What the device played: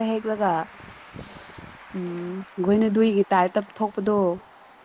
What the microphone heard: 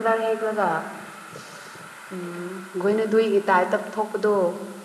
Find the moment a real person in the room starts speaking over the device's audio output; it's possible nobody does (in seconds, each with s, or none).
none